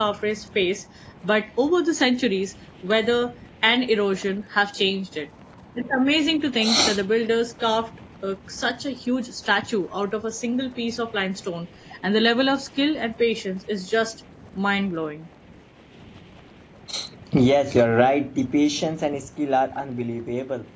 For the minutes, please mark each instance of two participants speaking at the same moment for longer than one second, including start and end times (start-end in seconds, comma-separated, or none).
none